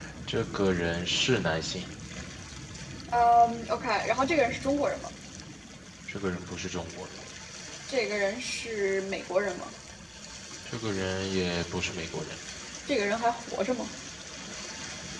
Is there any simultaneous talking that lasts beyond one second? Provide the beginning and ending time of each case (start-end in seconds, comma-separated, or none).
none